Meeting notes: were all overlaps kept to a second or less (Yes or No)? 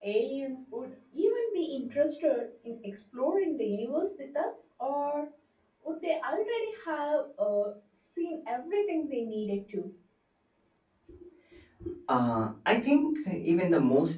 Yes